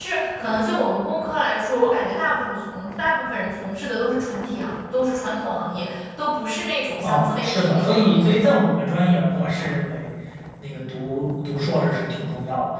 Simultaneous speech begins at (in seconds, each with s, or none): 7.0 s